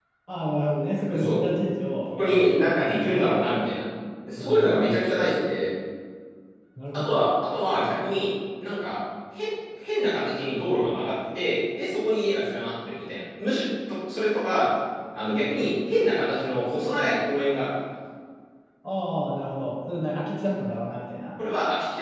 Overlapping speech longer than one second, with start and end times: 2.0-3.2

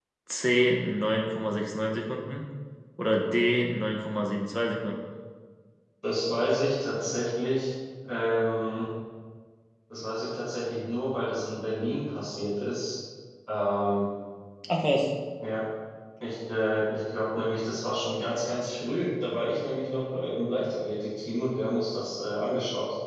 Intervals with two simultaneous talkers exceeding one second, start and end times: none

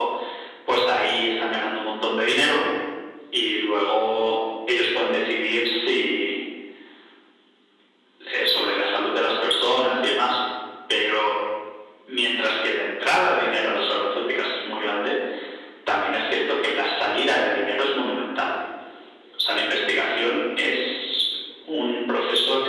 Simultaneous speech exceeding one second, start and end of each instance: none

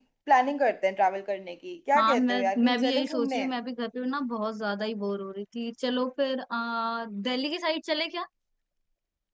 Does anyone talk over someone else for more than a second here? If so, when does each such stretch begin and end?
1.9-3.5

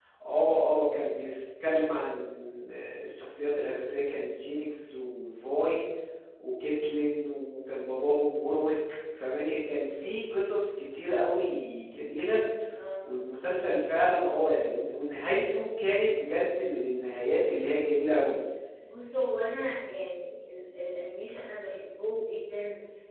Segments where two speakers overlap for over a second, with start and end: none

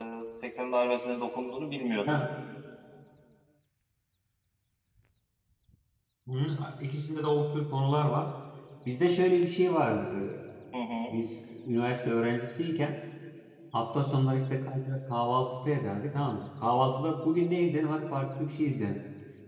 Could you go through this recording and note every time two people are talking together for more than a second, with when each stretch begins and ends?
none

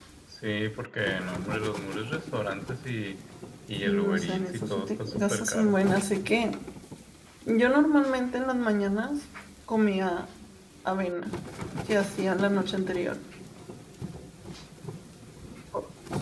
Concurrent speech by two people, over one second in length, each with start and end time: 3.8-5.8

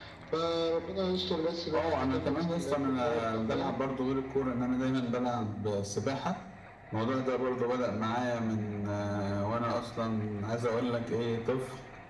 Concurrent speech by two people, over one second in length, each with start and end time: 1.7-3.7

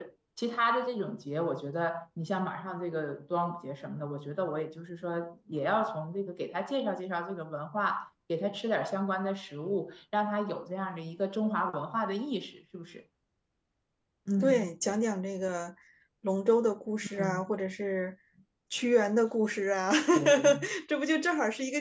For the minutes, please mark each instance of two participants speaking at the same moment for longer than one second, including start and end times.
none

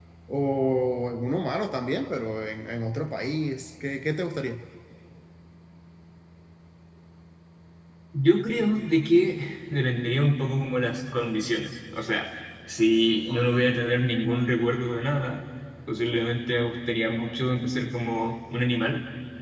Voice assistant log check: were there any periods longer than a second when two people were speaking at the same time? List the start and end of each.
none

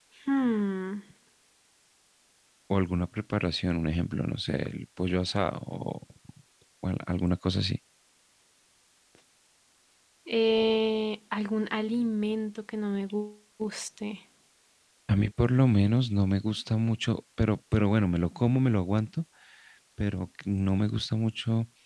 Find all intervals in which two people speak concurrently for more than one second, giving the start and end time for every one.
none

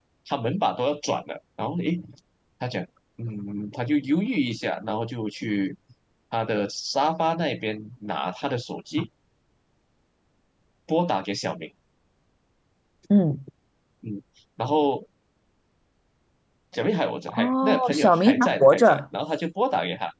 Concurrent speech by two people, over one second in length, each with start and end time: 17.4-19.0

